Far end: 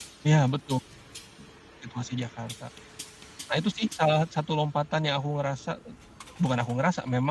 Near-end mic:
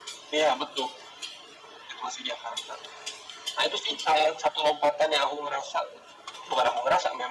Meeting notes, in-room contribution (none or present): none